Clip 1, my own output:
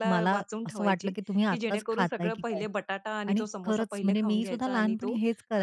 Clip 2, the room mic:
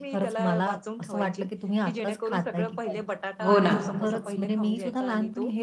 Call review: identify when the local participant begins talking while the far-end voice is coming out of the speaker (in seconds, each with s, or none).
3.4 s